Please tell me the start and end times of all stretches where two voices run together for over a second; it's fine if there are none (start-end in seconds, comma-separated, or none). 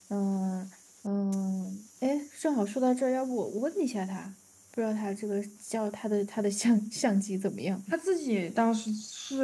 none